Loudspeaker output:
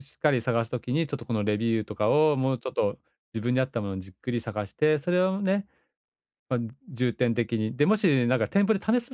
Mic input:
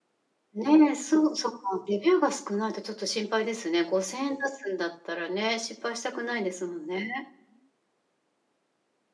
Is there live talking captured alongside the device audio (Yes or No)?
Yes